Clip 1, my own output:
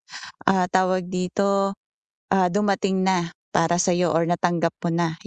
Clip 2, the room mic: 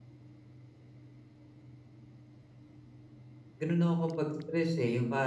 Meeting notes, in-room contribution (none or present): present